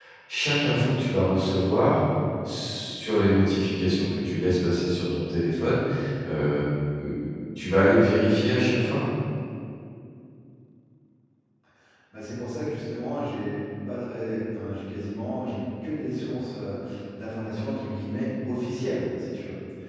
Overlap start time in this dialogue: none

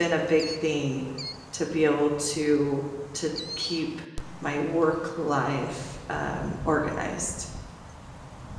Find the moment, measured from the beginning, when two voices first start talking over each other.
none

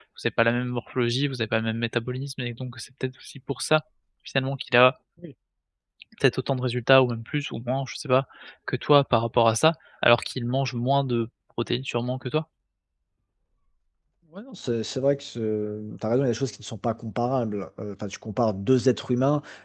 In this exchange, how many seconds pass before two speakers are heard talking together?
none

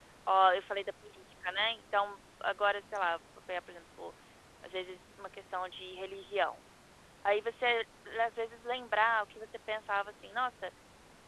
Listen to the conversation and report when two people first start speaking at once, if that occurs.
none

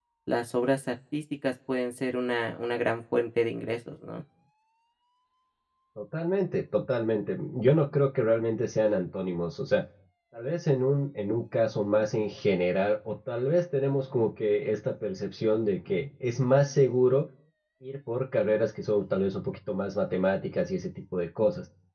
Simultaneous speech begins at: none

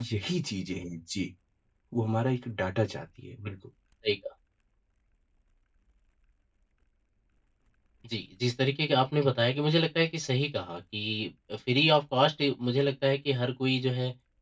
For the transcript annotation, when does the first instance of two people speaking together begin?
none

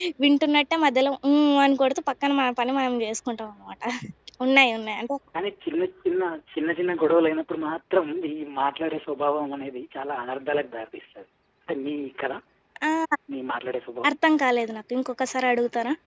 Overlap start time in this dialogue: none

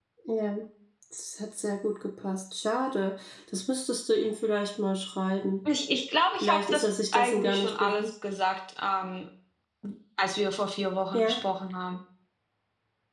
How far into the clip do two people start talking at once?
6.4 s

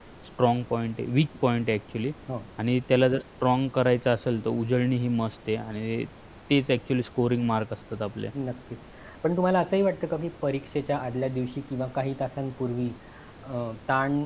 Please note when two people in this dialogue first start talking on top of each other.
none

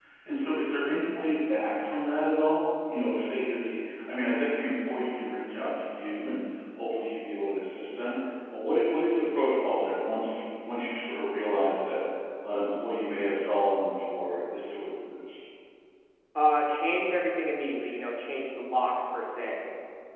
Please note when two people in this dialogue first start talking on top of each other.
none

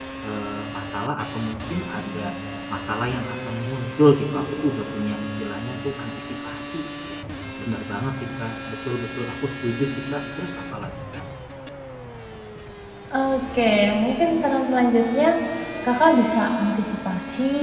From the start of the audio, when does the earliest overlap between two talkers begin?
none

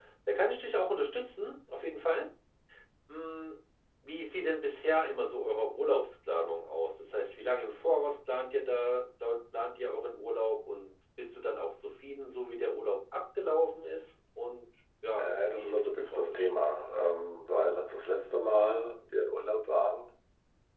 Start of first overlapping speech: 15.1 s

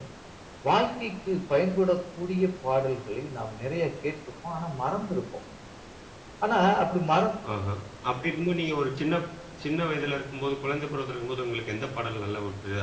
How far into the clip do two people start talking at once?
none

